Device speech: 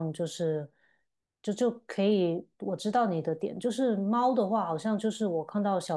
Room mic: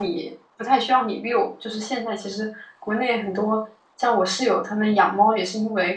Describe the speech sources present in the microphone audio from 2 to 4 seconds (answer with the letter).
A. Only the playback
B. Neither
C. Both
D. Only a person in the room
D